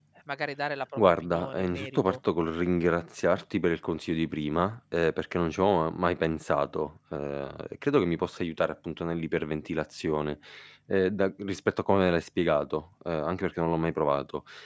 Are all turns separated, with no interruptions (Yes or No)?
No